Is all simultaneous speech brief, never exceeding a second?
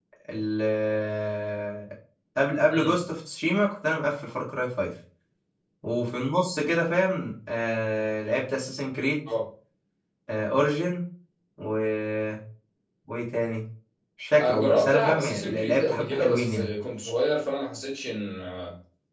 No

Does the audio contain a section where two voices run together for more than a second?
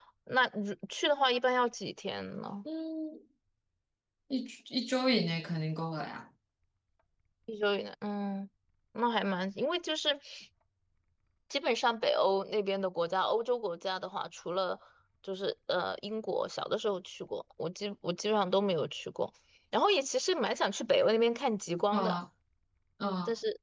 No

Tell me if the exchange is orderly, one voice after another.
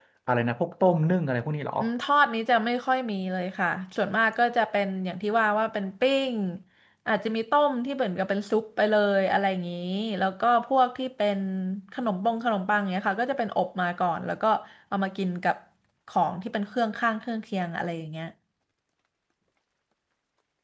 Yes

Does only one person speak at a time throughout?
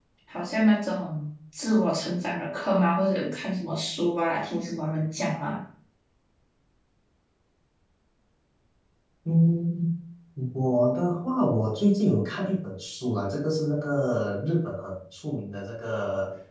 Yes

